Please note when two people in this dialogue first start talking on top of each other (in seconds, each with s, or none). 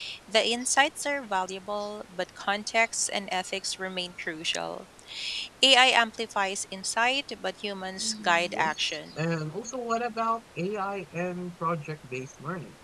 8.0 s